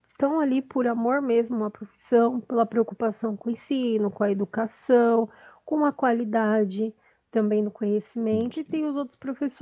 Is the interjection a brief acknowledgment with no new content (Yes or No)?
Yes